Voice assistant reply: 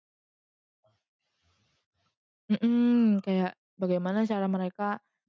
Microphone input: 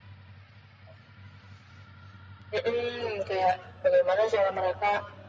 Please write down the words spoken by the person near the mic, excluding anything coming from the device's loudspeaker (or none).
none